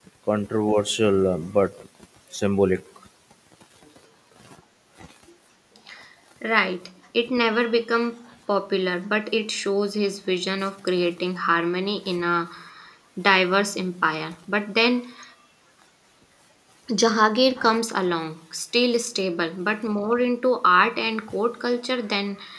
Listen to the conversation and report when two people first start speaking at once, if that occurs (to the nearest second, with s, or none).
none